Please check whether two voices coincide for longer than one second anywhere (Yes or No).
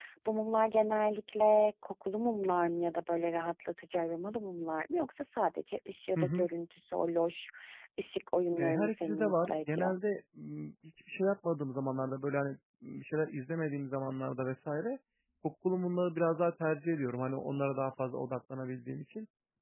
Yes